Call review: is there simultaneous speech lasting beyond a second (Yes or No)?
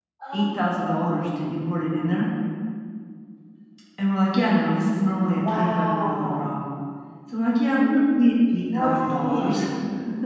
Yes